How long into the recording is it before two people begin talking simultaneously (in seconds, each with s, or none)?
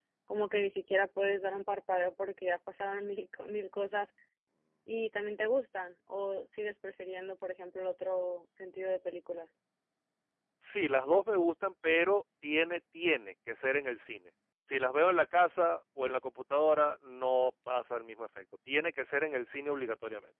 none